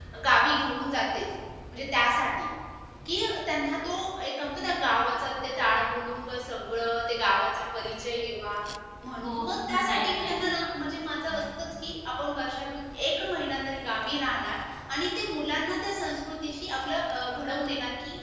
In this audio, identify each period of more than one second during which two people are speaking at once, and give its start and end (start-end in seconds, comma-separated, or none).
9.2-10.5